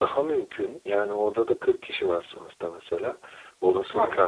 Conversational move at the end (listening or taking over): listening